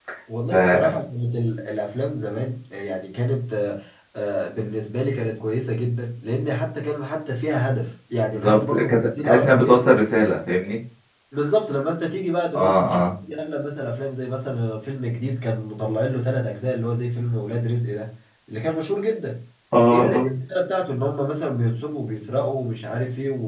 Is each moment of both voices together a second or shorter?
No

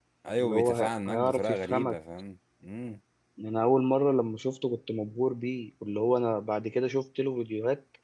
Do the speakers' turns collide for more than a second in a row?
Yes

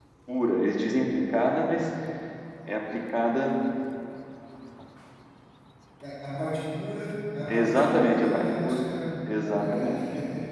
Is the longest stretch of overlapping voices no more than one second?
No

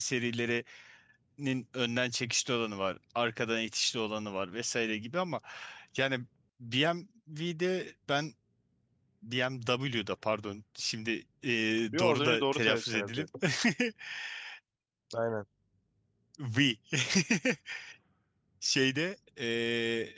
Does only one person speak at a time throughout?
No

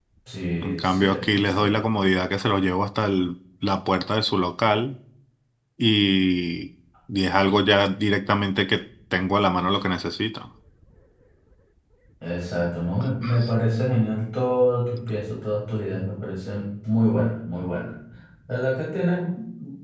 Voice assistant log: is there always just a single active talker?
No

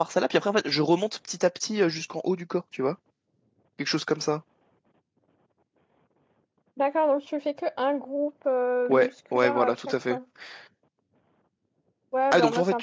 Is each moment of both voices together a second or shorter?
No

